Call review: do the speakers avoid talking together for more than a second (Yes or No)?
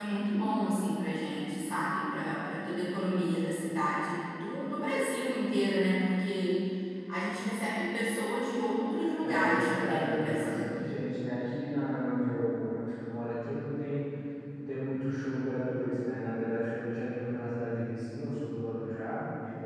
No